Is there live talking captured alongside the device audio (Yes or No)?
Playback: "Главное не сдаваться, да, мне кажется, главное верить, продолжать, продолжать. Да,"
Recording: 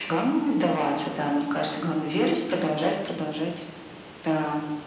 No